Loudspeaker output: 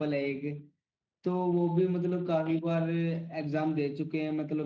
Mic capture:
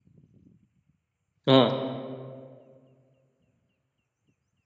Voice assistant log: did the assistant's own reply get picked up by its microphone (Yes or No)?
No